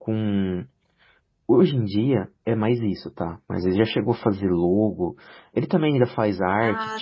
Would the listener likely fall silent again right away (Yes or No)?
Yes